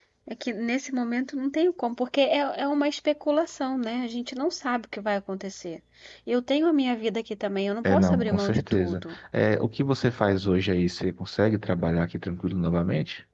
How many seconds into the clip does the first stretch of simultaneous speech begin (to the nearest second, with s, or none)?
8 s